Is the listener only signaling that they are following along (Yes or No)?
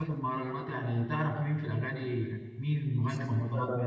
No